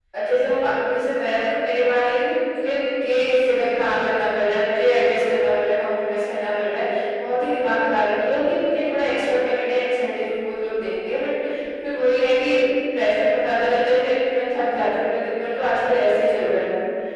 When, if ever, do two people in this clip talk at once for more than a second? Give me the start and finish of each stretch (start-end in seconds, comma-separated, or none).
none